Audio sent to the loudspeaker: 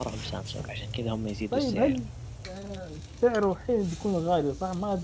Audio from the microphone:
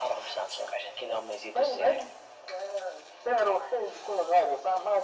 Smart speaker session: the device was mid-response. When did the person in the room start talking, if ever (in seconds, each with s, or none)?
none